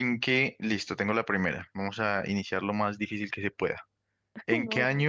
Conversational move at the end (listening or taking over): listening